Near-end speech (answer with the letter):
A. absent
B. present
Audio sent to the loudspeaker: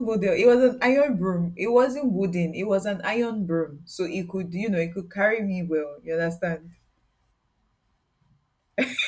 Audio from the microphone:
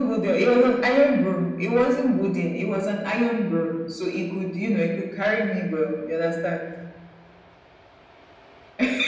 A